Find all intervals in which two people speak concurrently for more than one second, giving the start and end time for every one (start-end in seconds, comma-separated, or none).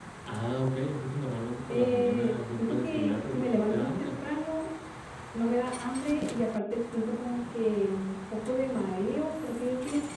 1.7-4.1